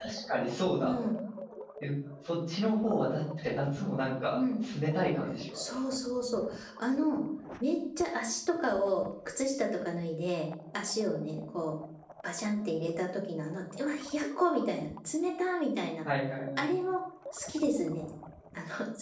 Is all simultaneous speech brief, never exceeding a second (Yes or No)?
Yes